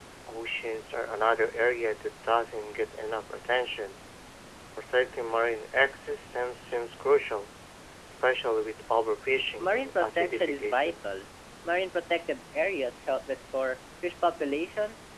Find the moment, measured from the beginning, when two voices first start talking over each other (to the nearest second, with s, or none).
10 s